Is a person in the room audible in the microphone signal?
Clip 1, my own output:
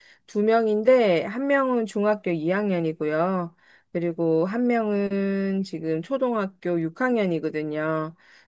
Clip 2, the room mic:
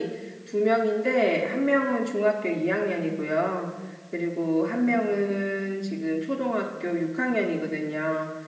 No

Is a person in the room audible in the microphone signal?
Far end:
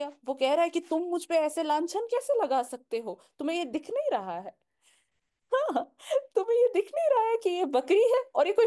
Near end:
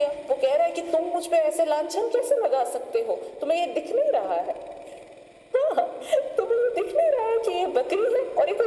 No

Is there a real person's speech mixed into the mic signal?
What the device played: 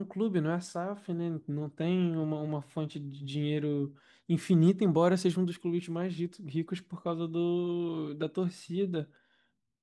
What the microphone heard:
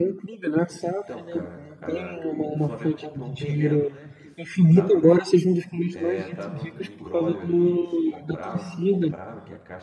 Yes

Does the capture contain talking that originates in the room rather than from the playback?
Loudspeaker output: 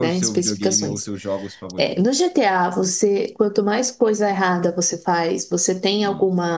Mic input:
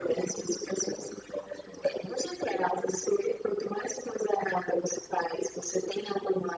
No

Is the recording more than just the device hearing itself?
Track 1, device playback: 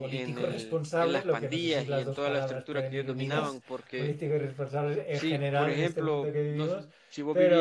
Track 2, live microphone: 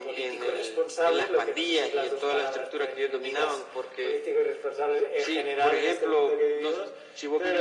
No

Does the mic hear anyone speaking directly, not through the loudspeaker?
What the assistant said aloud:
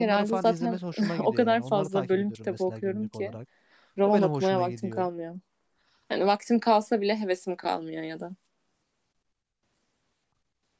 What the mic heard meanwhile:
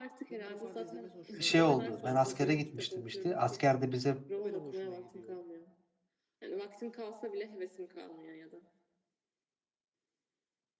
Yes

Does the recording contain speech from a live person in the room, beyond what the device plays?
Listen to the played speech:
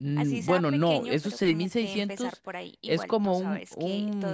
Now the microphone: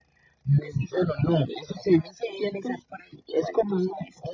No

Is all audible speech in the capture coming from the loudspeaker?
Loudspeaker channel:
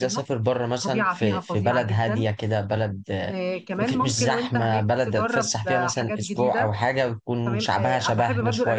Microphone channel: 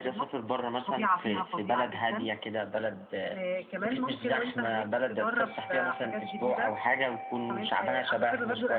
Yes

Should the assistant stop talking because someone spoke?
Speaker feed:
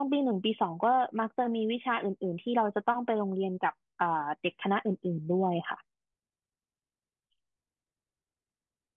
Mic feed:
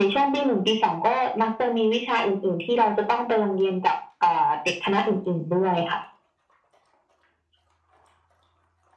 No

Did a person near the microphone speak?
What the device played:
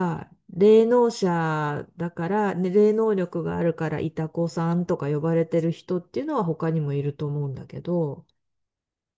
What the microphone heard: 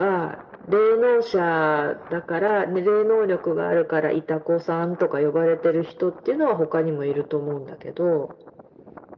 No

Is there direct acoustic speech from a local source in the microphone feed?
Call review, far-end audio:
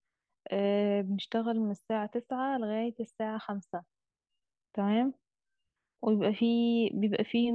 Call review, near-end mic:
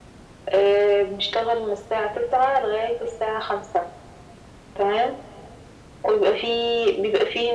No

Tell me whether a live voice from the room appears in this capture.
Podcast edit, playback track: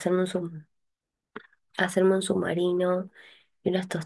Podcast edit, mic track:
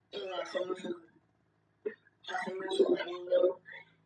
No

